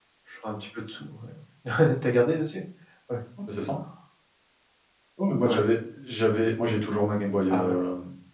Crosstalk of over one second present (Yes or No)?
No